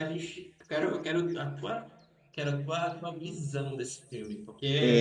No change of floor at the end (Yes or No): No